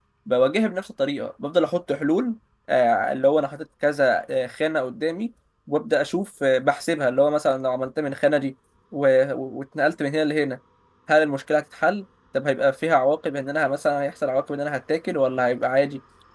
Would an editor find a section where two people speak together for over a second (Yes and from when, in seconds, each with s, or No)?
No